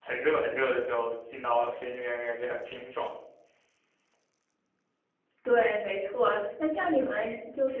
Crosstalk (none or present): none